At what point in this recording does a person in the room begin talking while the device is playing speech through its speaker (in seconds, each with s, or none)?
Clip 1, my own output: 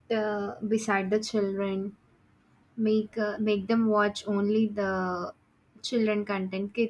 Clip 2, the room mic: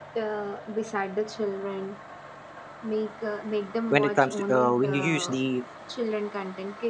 3.9 s